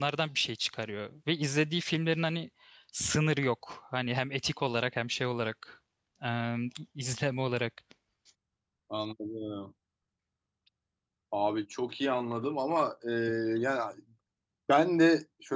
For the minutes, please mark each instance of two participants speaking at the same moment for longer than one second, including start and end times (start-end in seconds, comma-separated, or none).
none